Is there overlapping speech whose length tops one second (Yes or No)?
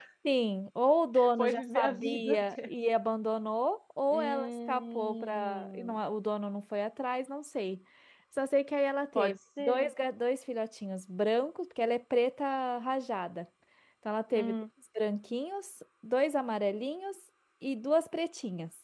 Yes